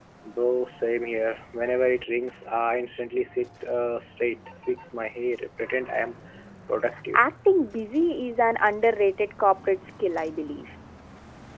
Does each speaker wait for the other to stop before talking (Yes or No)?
Yes